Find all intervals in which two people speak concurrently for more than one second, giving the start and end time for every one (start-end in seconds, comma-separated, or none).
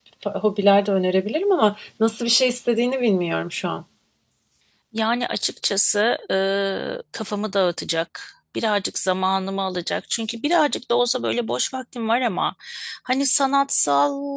none